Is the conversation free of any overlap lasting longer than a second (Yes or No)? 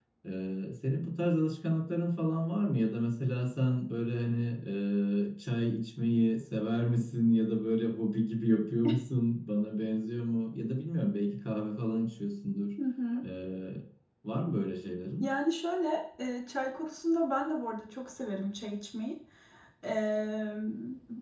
Yes